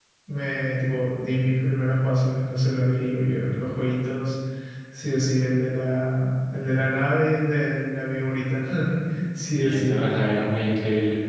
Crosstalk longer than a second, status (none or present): none